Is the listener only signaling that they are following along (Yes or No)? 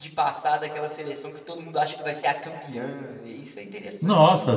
No